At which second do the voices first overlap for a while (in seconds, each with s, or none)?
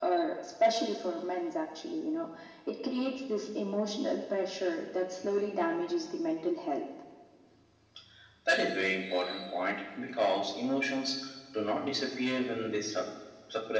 none